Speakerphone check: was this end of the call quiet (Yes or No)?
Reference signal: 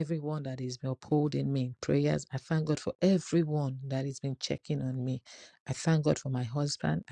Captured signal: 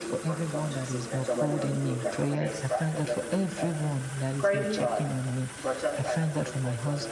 No